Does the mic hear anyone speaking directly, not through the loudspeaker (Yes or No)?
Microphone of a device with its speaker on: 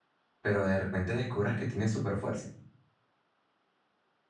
Yes